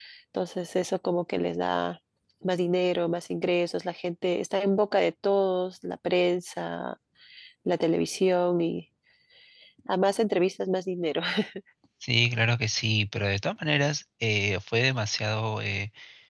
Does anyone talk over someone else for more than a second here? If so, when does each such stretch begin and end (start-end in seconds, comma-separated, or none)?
none